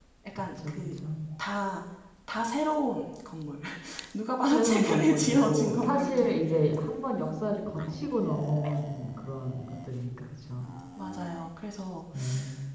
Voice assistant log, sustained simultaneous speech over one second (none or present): present